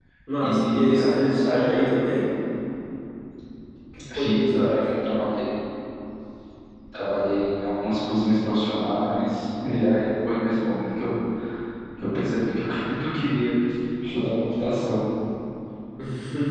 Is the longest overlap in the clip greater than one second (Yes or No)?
Yes